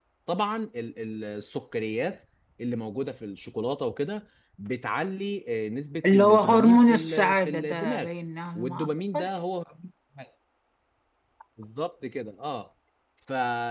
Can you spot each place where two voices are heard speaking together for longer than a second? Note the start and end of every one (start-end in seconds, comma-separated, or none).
6.0-8.1